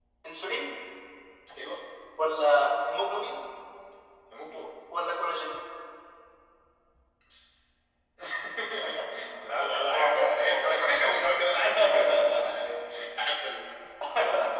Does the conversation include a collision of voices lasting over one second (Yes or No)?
Yes